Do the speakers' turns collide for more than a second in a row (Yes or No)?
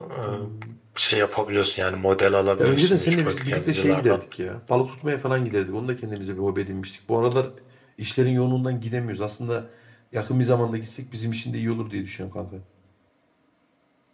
Yes